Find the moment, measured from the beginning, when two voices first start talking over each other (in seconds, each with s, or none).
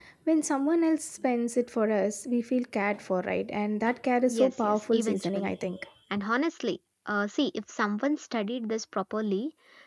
4.3 s